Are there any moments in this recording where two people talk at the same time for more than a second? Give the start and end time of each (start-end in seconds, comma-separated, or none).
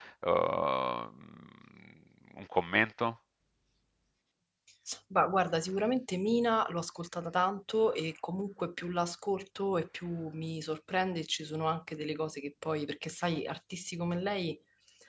none